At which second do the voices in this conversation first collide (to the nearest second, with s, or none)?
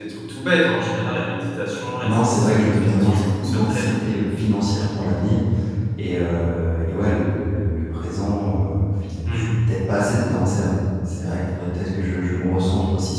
2 s